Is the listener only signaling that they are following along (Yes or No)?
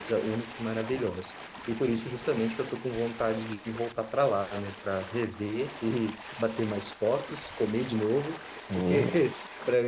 Yes